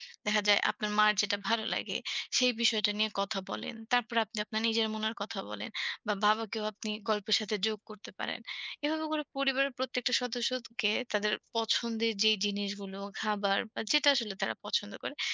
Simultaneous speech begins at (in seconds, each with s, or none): none